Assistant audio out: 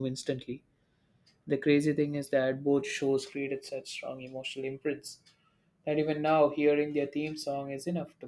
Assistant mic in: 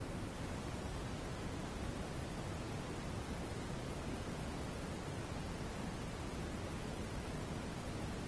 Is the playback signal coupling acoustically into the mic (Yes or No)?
No